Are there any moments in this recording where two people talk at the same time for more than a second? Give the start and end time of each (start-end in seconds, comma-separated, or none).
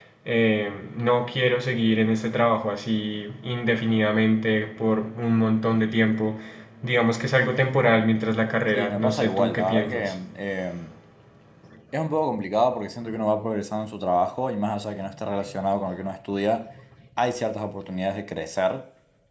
8.7-10.2